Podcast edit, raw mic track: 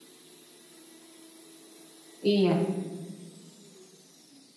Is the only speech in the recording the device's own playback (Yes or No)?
No